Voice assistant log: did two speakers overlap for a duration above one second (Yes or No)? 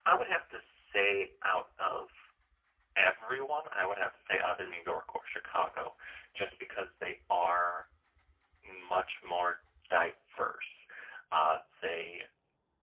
No